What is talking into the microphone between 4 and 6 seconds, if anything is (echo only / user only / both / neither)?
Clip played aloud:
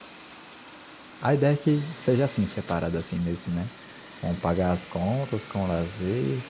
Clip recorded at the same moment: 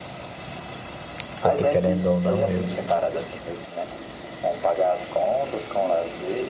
echo only